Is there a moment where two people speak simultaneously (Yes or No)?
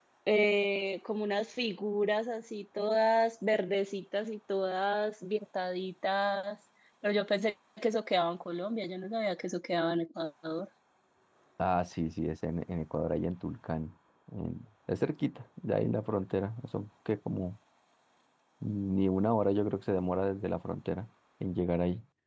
No